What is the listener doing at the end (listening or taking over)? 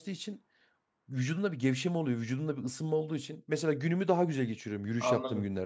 taking over